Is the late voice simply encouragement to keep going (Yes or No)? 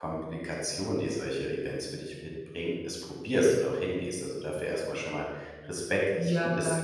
Yes